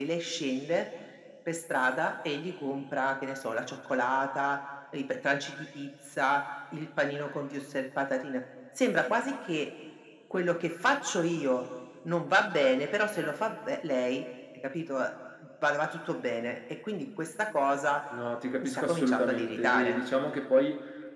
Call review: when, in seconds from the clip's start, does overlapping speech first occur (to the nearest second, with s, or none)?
19 s